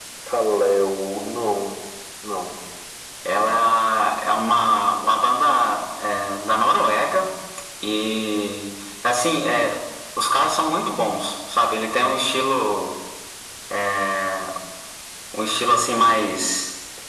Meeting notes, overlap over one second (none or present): none